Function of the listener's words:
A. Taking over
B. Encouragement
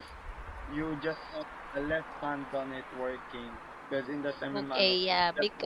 A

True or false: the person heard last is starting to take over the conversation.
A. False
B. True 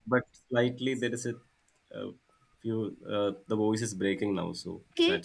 B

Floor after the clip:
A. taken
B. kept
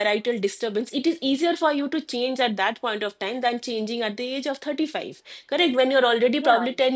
B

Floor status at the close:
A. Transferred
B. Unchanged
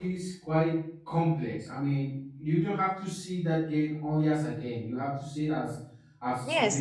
A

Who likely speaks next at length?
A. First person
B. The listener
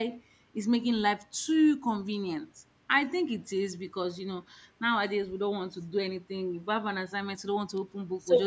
B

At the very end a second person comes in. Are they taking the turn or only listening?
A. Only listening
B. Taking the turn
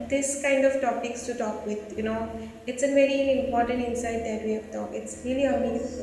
B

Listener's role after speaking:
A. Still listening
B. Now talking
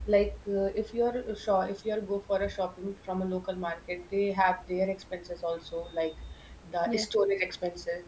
A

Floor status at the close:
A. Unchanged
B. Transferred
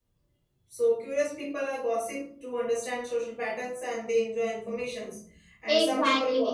B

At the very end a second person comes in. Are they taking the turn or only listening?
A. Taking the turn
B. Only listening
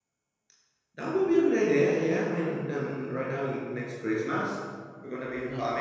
B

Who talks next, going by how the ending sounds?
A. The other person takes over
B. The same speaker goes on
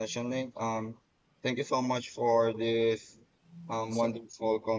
B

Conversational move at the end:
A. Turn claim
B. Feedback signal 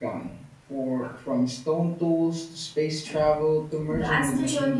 A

